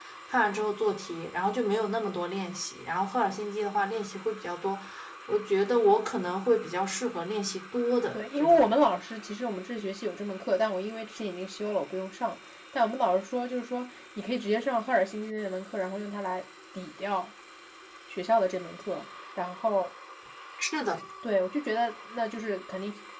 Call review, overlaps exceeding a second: none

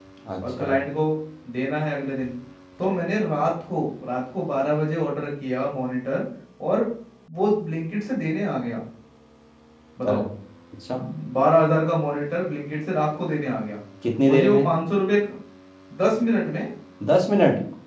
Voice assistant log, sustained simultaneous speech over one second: none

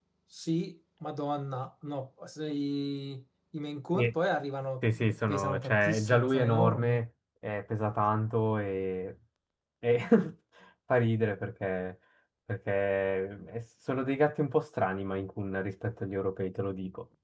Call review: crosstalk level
present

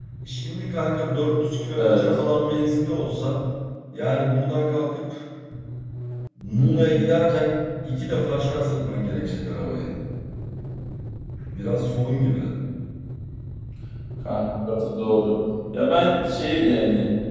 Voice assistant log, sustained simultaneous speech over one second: none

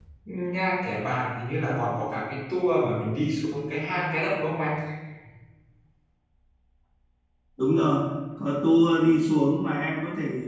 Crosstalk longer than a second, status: none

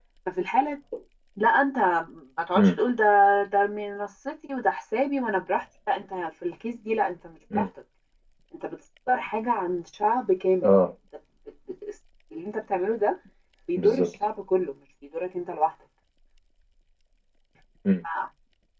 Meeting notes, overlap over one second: none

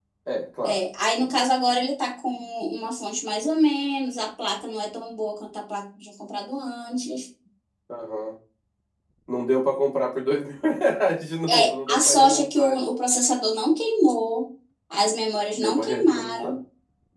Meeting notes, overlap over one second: present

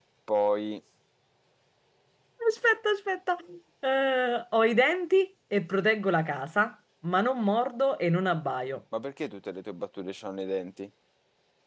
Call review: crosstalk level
none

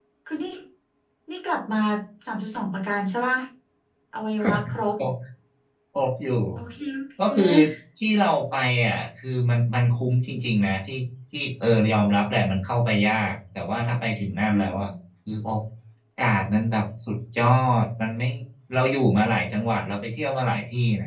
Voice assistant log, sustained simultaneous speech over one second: none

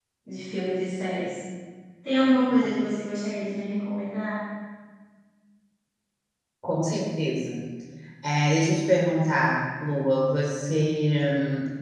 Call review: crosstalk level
none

